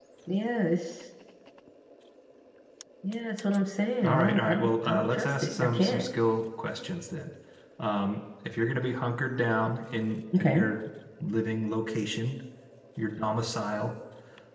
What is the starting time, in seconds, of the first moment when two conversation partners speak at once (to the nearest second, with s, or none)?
4 s